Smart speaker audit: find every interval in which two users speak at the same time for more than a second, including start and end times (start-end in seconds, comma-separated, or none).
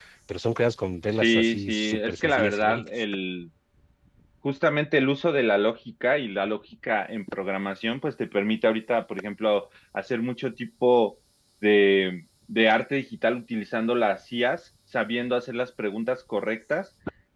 1.1-2.9